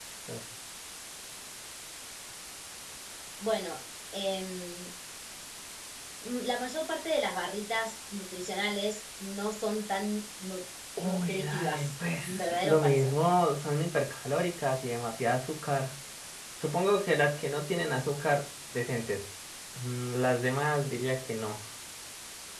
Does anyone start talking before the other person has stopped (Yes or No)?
Yes